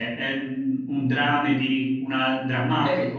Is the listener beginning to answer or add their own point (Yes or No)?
Yes